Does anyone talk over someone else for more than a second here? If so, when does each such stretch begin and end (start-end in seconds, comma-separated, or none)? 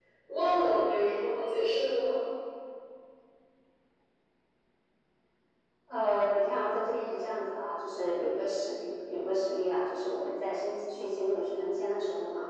none